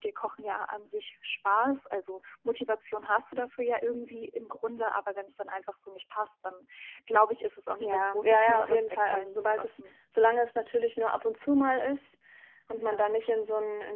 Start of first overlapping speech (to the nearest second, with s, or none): 8 s